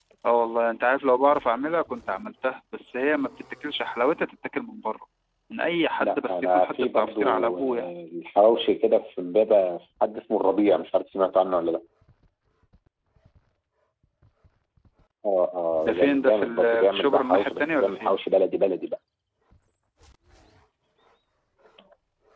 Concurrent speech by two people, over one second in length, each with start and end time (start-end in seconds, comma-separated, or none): 6.0-7.9, 15.8-18.2